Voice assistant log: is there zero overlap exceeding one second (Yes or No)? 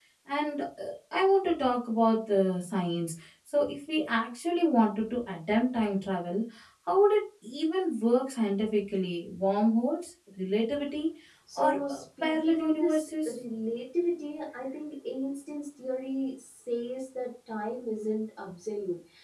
No